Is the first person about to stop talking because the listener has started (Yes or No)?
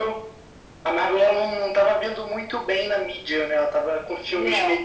No